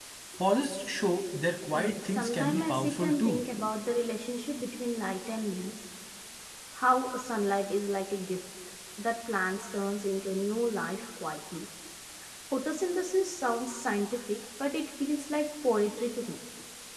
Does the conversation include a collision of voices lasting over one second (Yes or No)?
Yes